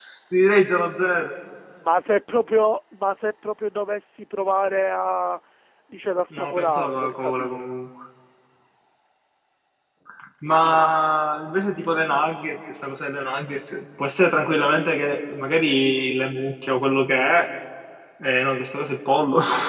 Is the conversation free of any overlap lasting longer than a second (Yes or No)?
No